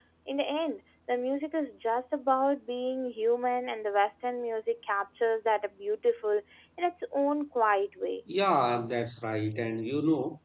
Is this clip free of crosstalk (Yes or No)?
Yes